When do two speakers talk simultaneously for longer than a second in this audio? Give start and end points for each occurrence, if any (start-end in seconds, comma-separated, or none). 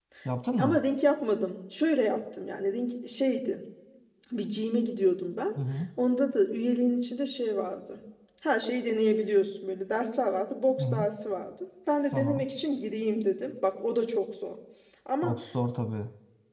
none